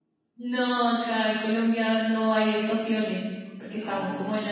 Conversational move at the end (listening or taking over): listening